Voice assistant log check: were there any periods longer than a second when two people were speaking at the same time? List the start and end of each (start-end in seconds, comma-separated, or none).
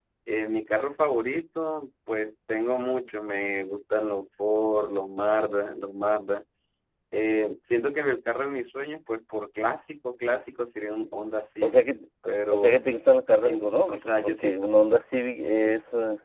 13.4-14.7